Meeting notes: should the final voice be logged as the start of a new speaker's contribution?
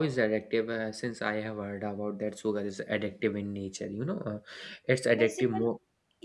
Yes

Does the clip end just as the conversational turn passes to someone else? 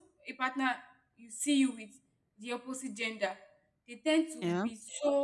No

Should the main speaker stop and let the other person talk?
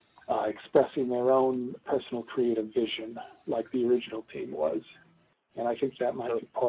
No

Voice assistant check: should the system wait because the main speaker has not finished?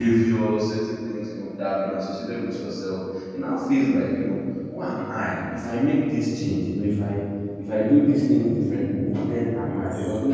Yes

